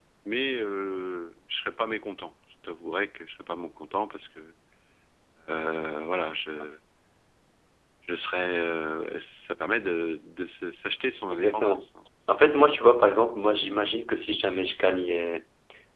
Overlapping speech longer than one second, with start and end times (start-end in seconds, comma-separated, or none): none